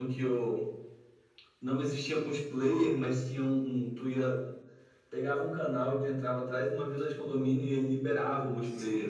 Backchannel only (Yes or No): No